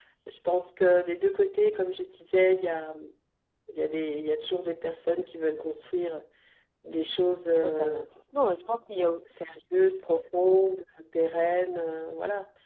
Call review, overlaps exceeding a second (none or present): none